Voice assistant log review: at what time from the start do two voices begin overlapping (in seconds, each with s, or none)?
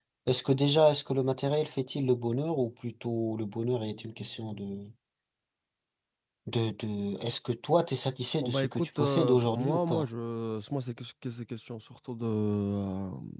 8.4 s